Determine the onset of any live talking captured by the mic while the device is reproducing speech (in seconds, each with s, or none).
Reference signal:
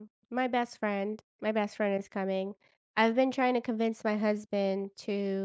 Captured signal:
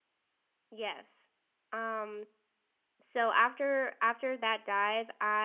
0.7 s